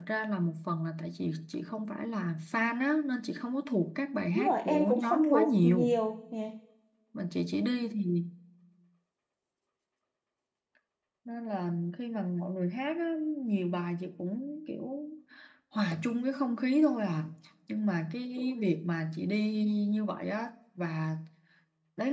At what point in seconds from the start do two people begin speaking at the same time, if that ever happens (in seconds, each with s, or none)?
4.3 s